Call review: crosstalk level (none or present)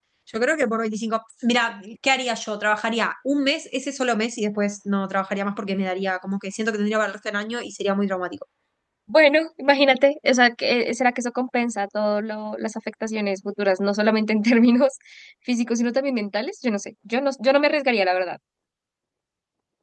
none